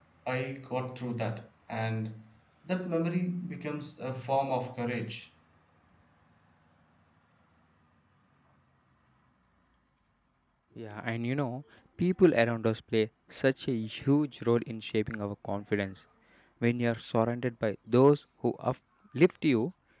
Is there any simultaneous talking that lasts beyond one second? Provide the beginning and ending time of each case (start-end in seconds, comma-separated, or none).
none